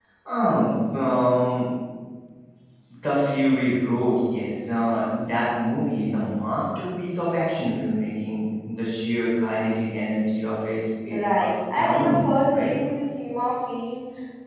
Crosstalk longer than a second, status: present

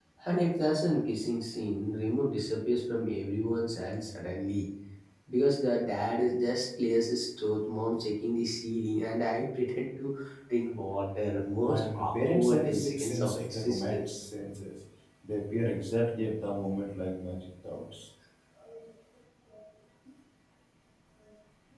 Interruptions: present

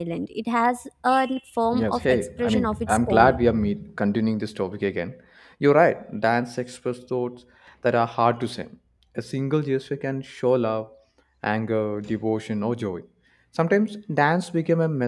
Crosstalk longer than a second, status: present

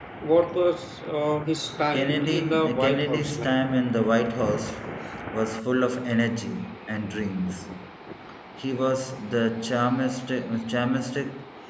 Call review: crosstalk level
present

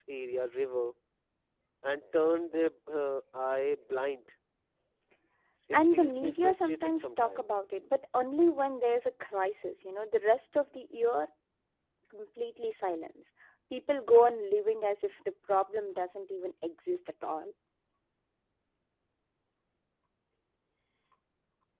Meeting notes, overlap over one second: present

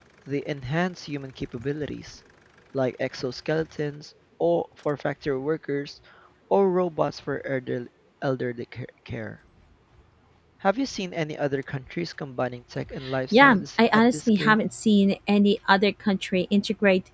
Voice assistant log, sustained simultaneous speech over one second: present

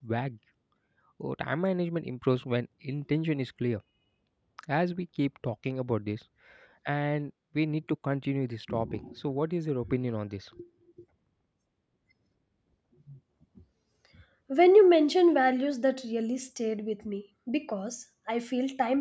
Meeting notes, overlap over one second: none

